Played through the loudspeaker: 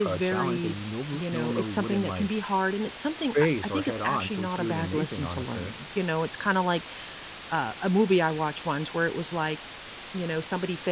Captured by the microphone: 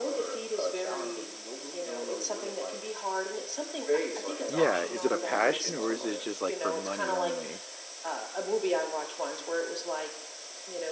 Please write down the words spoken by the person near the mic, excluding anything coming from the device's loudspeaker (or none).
Yeah. Is it a passion or is it just, like, for money only?